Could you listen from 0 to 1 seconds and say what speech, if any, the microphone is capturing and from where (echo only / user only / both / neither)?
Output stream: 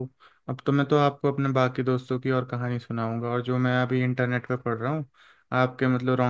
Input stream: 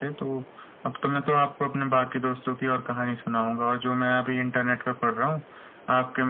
echo only